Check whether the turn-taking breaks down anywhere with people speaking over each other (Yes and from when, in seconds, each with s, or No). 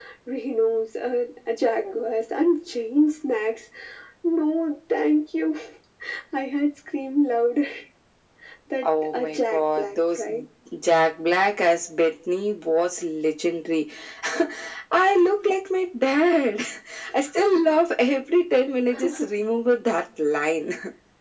Yes, from 8.8 s